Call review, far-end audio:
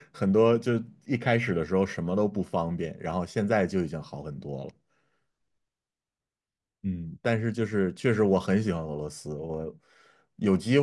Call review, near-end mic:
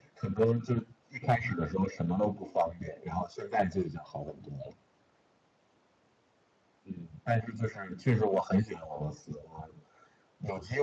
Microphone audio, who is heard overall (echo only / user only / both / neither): echo only